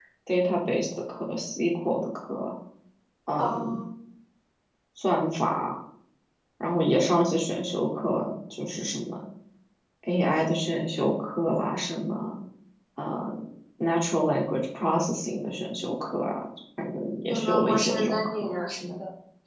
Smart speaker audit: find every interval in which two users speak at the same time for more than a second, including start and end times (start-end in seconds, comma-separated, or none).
17.3-18.6